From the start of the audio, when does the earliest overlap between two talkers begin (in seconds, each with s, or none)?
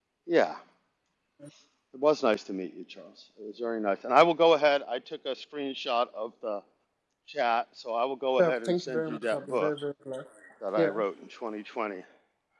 8.4 s